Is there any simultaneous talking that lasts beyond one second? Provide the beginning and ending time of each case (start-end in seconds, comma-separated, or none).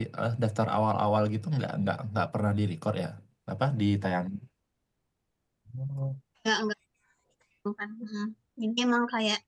none